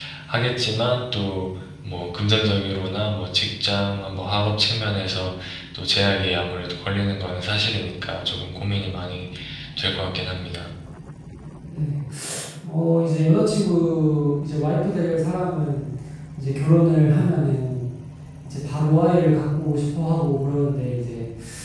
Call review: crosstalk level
none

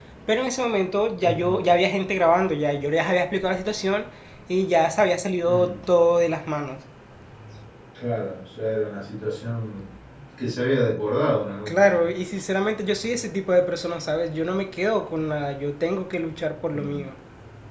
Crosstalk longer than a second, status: none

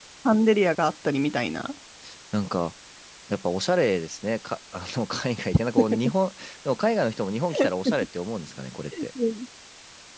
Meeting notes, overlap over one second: none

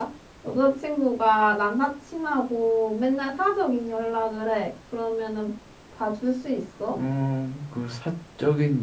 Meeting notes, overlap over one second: none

